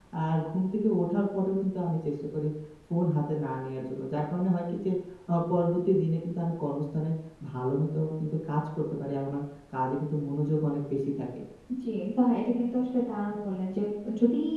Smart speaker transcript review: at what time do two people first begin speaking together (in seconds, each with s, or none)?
none